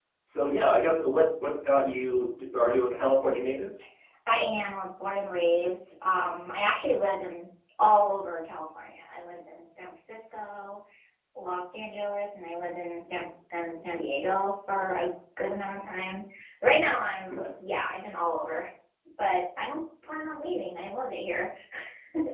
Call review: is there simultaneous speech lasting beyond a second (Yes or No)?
No